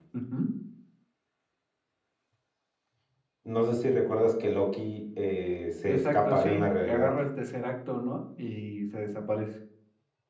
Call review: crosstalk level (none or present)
present